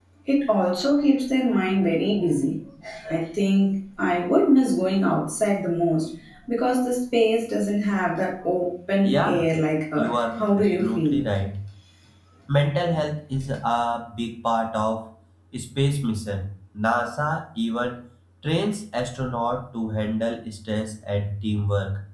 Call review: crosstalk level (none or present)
present